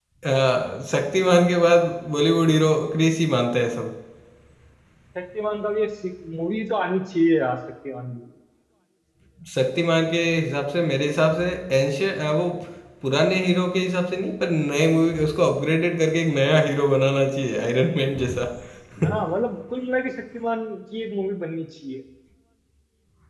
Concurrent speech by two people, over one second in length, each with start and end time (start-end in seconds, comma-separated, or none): none